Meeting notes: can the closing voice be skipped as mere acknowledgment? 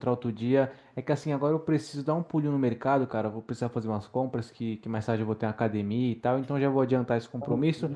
Yes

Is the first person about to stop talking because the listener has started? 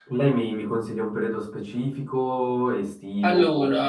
No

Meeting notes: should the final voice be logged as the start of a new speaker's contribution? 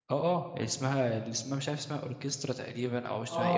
Yes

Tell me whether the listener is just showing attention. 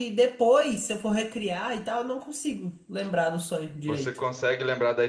No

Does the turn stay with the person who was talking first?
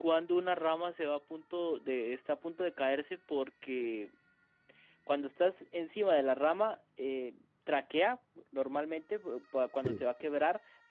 Yes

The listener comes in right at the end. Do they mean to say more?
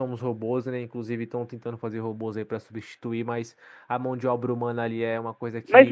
Yes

